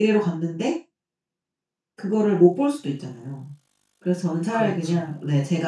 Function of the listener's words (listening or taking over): listening